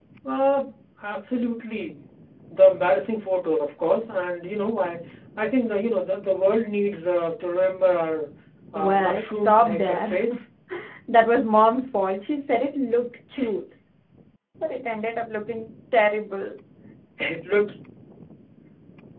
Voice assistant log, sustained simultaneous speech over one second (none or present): present